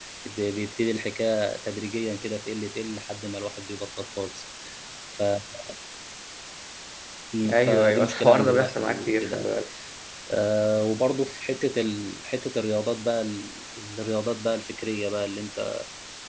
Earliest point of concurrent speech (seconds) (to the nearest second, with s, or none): 8 s